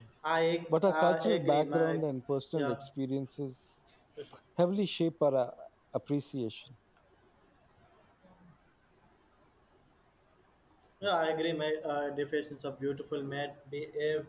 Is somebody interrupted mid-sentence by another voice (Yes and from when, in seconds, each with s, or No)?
Yes, from 0.7 s